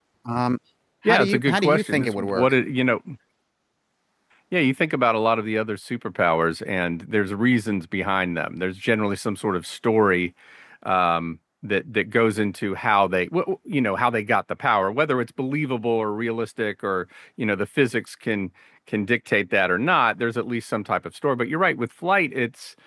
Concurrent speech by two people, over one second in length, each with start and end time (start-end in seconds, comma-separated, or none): 1.1-2.5